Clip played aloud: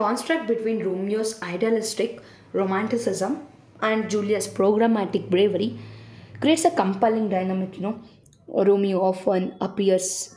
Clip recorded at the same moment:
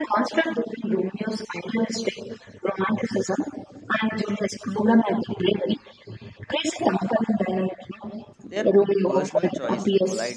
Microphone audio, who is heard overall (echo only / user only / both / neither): both